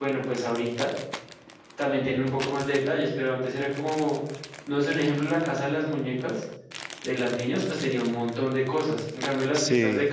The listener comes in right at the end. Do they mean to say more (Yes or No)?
No